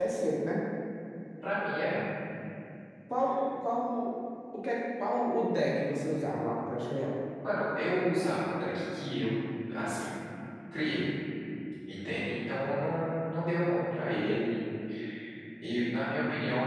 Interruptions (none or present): none